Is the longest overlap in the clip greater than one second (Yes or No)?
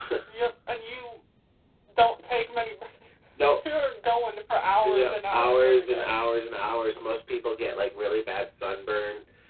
Yes